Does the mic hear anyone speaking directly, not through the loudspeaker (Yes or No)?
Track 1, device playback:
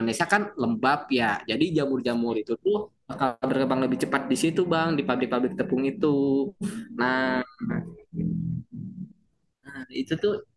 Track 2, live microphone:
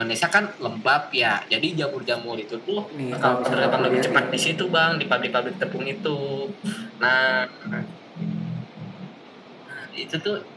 Yes